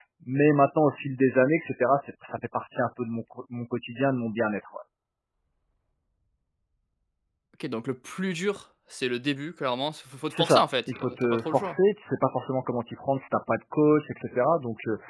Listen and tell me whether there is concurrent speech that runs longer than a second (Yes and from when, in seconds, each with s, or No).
Yes, from 10.3 s